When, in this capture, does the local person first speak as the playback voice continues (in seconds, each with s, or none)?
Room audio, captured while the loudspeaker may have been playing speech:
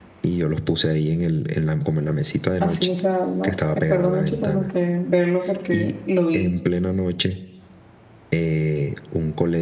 2.6 s